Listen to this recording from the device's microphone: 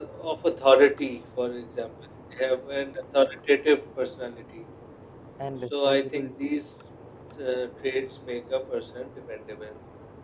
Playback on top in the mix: Yes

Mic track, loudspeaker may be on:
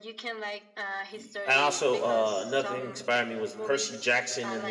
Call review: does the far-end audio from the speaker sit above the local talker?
No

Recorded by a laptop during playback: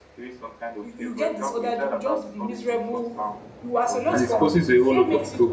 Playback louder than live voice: No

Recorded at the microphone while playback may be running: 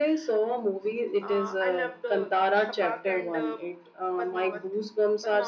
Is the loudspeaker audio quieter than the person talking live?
No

